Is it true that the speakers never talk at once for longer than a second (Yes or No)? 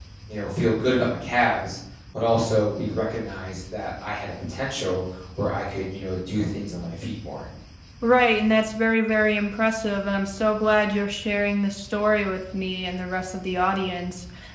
Yes